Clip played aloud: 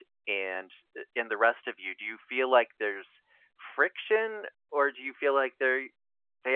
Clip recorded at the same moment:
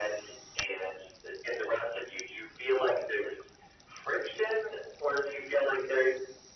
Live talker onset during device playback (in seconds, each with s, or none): none